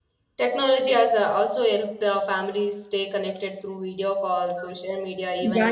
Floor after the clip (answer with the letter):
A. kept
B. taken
B